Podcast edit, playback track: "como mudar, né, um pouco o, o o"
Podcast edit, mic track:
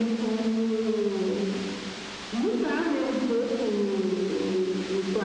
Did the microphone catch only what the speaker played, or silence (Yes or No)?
Yes